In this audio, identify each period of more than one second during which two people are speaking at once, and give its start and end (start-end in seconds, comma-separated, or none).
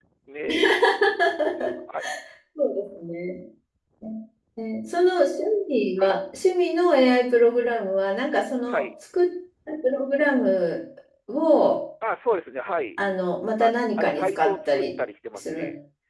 13.6-14.9